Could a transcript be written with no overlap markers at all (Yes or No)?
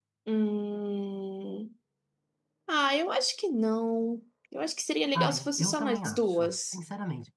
No